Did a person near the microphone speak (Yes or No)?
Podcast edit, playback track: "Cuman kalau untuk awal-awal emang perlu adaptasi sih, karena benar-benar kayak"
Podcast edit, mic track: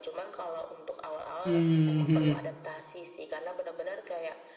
Yes